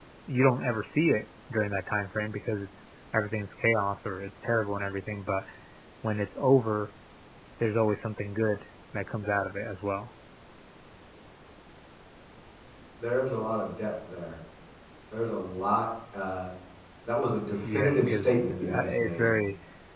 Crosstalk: present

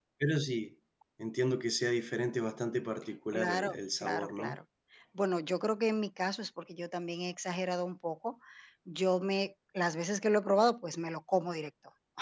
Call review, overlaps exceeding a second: present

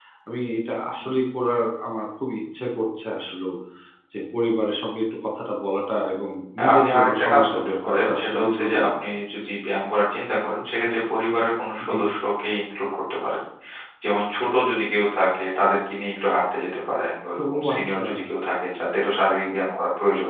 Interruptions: present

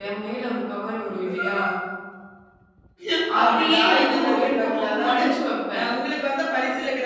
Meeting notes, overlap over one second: present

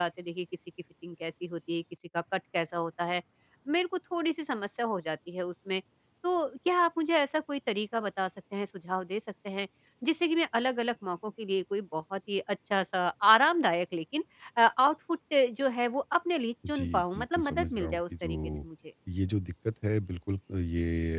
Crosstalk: present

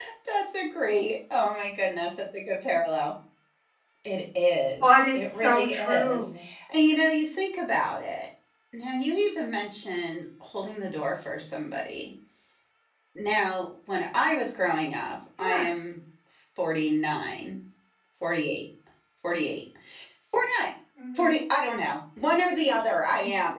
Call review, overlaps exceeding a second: present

